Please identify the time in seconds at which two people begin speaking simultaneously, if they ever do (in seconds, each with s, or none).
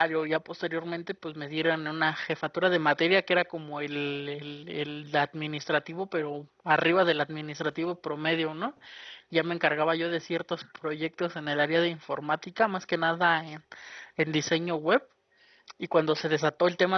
none